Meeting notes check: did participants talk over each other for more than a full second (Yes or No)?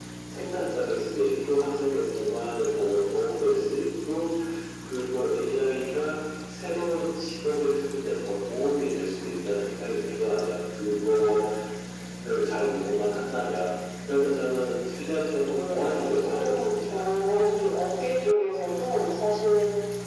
Yes